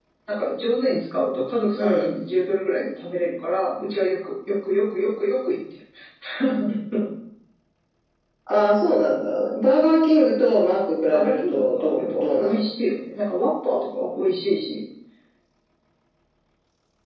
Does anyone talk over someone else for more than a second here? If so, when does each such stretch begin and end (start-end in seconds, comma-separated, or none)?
11.1-12.6